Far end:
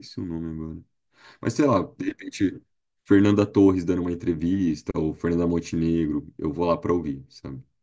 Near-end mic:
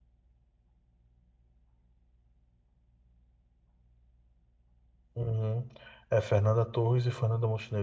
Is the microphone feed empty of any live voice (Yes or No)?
No